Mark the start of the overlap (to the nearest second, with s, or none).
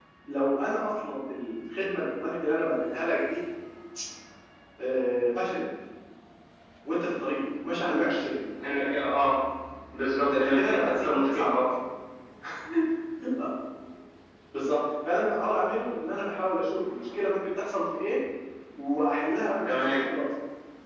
10 s